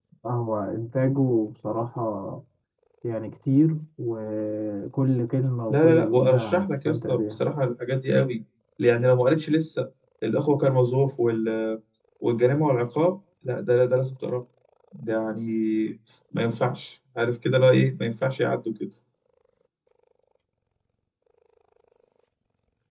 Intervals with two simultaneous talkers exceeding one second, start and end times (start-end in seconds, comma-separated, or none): 5.7-7.4